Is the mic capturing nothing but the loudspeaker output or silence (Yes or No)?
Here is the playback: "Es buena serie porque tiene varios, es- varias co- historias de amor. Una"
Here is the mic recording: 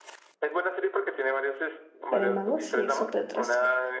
No